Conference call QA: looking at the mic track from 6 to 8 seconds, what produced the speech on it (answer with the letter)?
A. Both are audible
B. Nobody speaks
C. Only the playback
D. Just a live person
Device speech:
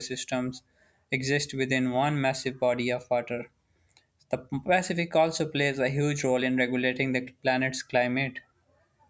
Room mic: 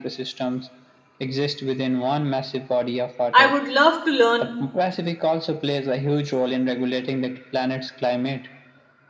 C